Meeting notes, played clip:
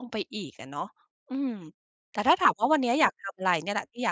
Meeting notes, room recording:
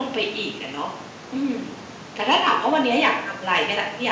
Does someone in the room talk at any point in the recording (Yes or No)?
No